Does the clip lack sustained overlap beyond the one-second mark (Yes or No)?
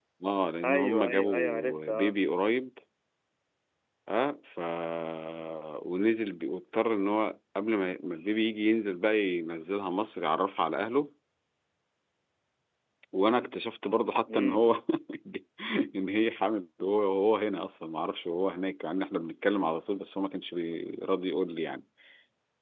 No